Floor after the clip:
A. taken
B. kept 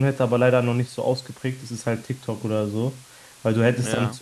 B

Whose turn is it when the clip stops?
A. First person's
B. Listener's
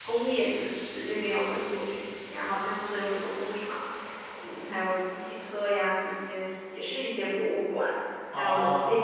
A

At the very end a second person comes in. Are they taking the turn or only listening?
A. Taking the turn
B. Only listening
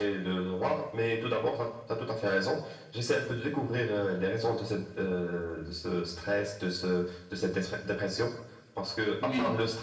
B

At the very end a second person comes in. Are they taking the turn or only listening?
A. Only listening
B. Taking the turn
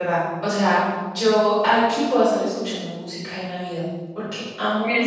A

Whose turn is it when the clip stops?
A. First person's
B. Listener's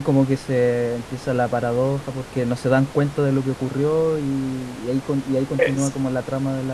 A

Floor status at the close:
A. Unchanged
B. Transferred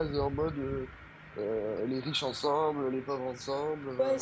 B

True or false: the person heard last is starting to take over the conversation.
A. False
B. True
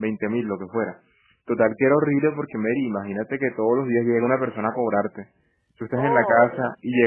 A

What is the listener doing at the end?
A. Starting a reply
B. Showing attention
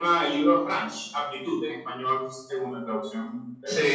A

